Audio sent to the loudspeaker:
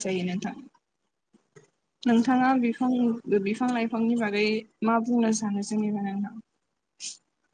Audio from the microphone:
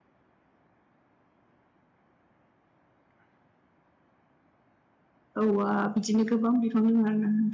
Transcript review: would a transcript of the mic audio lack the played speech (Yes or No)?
Yes